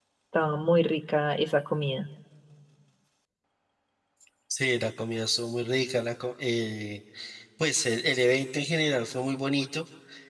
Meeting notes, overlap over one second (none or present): none